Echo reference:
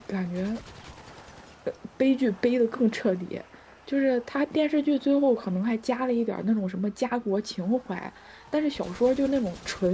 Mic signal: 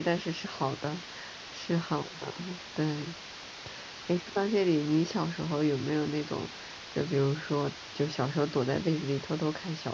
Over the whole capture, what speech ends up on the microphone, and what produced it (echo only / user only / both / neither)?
user only